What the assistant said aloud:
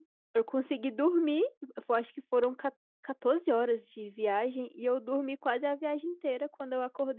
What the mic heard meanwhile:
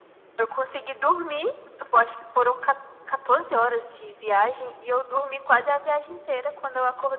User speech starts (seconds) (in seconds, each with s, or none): none